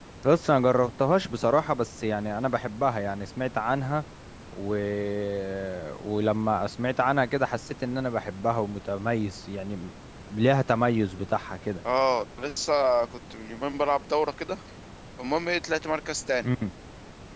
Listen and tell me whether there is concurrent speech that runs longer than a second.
No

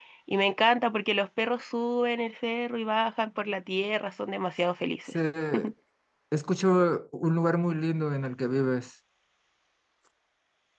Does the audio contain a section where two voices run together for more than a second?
No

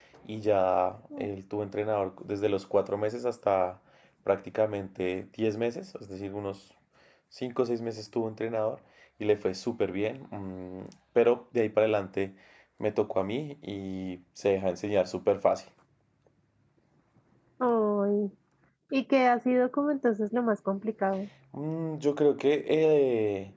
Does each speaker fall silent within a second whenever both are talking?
Yes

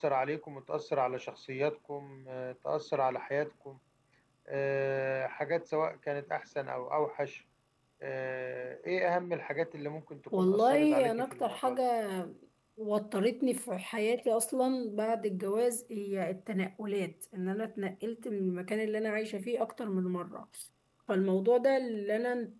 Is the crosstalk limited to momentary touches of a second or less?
No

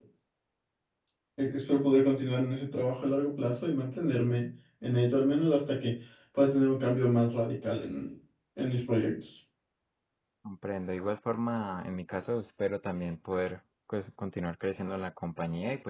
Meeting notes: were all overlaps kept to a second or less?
Yes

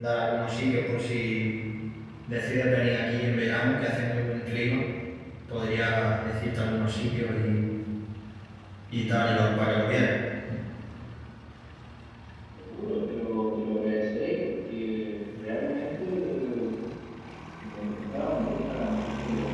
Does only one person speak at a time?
Yes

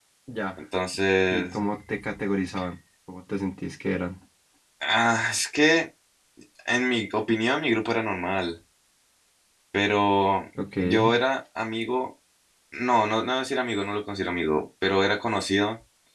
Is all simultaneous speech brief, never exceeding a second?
Yes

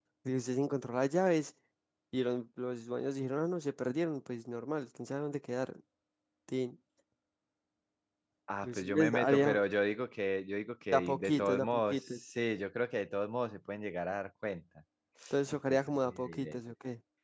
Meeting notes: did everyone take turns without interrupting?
No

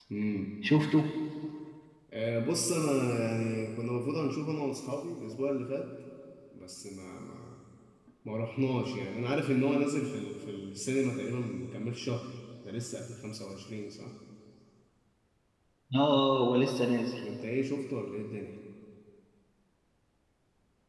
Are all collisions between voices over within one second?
Yes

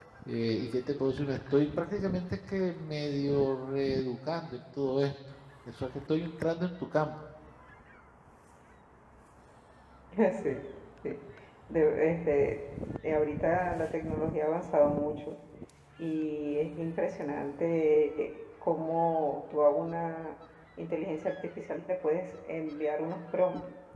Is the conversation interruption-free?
Yes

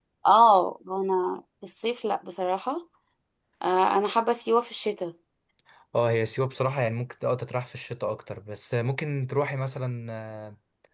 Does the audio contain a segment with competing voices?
No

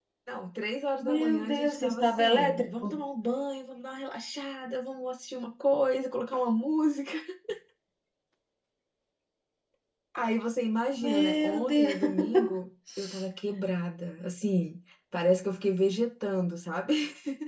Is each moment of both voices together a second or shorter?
No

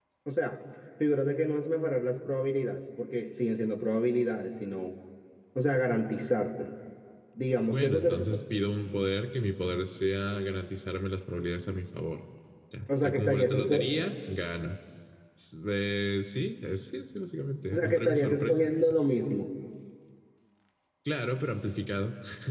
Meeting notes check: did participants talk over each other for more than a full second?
Yes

